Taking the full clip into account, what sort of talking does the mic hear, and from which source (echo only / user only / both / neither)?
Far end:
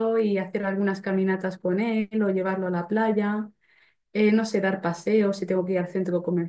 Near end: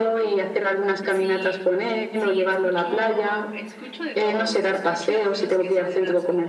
both